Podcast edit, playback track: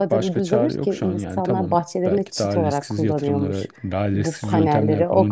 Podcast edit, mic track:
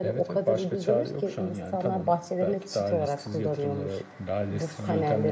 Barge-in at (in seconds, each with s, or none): none